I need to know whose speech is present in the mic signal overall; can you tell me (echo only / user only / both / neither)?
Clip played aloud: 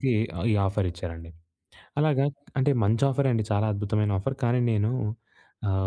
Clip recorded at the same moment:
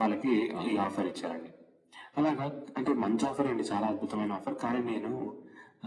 echo only